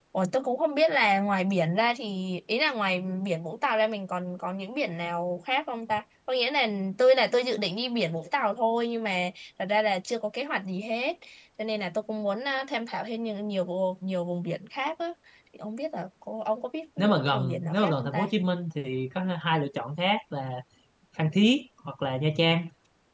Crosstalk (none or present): present